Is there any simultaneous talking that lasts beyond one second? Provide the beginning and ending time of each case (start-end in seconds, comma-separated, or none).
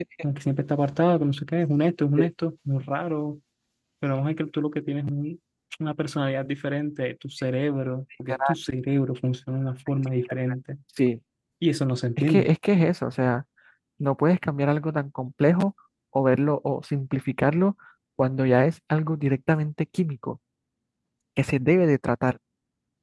none